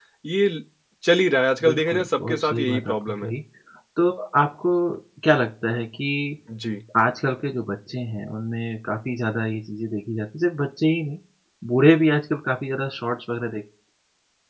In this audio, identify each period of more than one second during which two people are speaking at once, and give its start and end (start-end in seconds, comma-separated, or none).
1.6-3.3